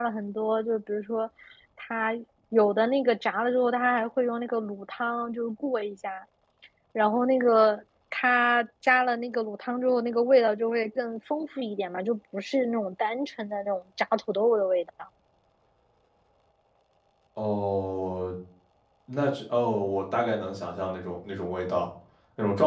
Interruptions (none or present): none